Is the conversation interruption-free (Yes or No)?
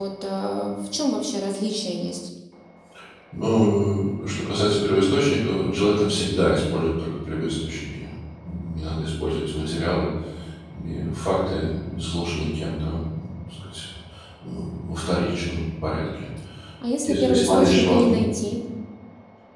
No